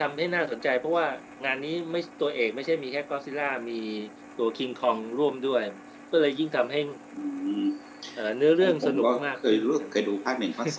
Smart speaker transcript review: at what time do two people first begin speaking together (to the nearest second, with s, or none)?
9 s